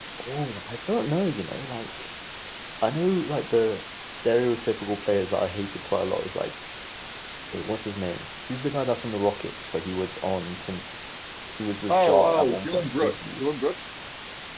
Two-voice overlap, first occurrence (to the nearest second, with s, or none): 12 s